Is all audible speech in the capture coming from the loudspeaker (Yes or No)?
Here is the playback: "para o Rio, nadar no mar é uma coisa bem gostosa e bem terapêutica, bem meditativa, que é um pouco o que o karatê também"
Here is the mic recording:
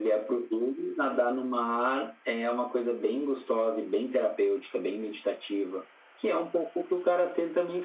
Yes